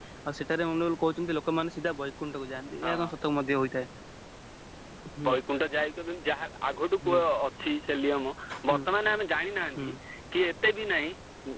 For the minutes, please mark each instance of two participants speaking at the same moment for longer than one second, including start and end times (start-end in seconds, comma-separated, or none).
none